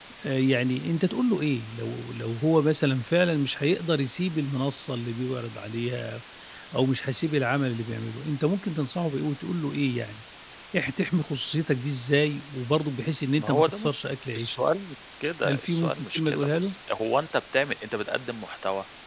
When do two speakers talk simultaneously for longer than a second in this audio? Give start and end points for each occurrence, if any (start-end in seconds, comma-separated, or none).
15.4-16.7